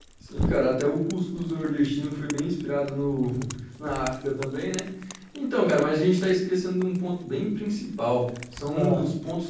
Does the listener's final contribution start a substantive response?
No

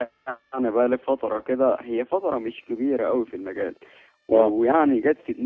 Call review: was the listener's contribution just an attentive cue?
Yes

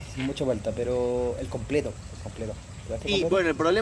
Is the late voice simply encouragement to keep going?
No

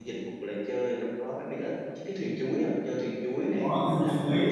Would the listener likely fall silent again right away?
No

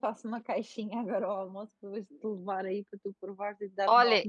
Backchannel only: No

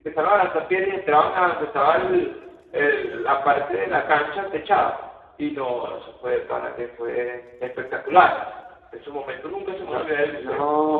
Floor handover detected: Yes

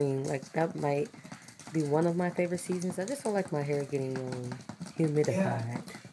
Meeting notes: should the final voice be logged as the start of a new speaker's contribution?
Yes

